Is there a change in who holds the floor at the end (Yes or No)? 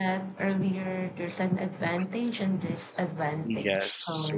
Yes